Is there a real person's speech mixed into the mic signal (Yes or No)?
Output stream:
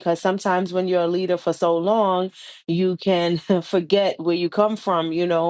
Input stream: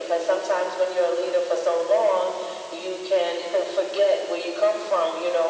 No